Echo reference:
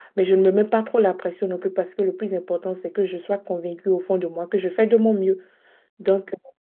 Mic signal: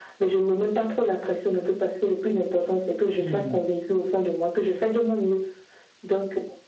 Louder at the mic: echo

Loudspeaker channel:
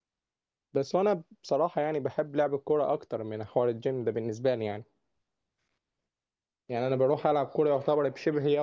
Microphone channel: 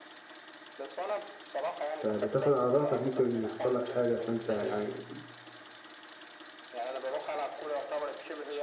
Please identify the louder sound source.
user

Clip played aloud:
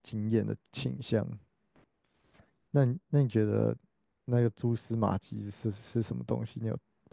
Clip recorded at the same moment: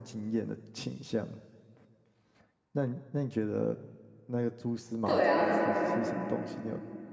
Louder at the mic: user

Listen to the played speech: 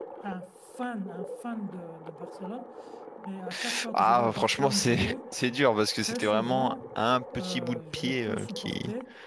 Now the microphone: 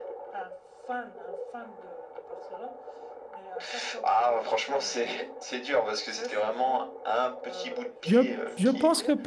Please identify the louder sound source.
user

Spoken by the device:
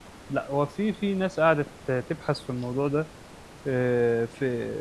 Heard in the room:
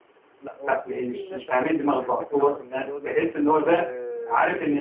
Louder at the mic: user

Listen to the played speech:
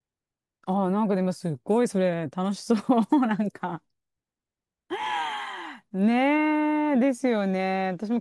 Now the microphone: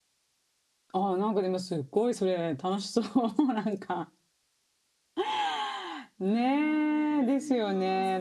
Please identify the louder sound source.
echo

